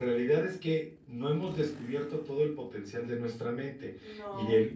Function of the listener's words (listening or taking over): listening